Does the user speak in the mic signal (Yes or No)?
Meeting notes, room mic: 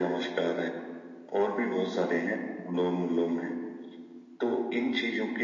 No